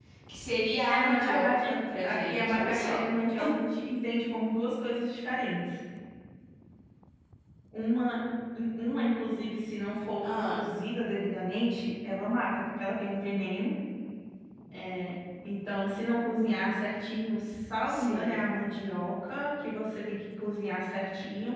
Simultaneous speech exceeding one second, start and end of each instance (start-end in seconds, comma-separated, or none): 0.9-3.0